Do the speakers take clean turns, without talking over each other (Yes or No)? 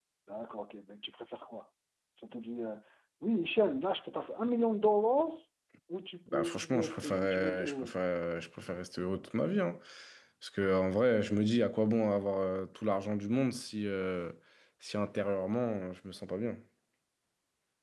No